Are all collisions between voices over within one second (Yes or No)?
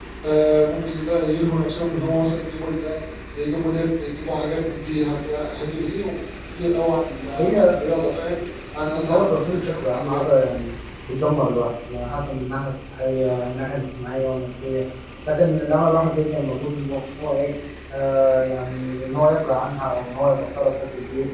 No